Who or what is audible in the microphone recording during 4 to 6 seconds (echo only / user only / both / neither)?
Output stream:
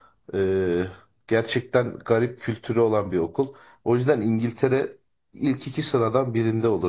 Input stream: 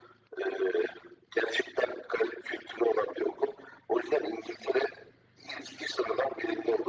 echo only